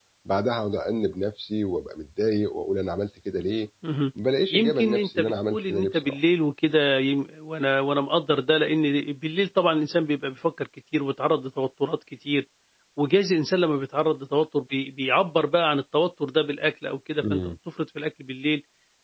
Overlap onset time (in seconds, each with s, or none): 4.5 s